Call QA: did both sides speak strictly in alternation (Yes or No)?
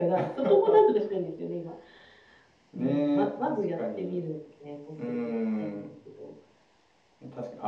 No